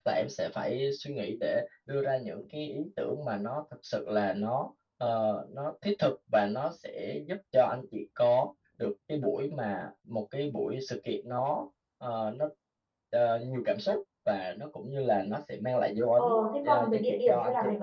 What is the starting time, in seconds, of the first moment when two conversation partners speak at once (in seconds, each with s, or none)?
16.2 s